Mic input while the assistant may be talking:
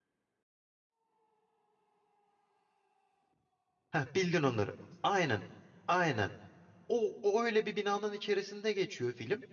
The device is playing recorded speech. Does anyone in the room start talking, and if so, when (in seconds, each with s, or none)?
3.9 s